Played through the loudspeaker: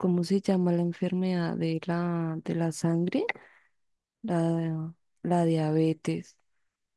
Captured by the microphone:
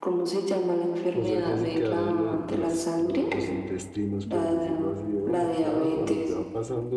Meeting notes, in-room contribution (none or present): present